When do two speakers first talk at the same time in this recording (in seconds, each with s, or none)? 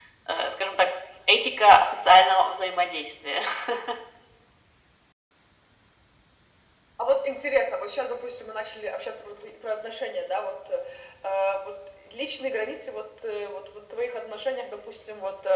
none